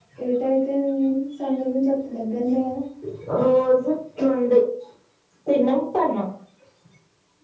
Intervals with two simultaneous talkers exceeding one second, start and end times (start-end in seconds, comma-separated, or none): none